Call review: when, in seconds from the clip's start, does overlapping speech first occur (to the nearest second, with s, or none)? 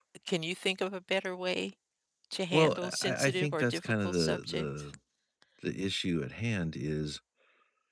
3 s